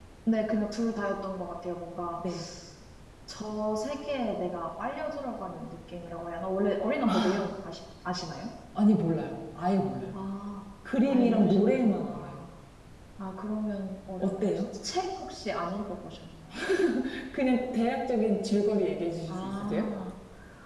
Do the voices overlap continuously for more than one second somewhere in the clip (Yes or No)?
Yes